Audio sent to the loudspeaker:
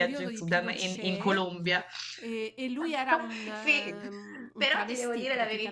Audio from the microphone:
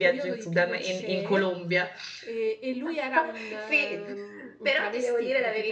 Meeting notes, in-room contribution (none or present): none